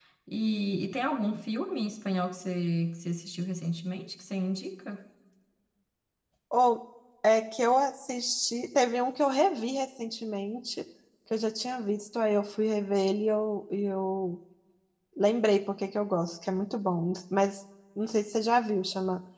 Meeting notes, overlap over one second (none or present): none